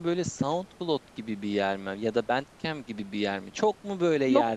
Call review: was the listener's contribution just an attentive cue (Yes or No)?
Yes